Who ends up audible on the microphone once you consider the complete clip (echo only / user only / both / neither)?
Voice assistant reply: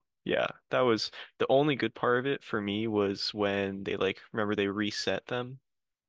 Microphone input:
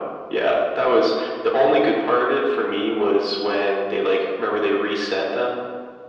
echo only